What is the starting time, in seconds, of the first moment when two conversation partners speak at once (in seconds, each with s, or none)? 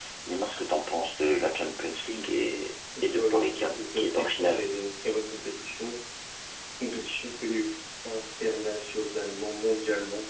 3.0 s